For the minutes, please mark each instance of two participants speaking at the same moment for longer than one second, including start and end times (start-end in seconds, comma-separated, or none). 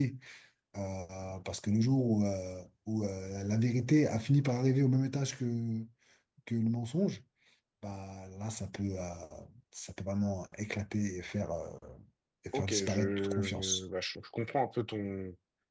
12.5-13.8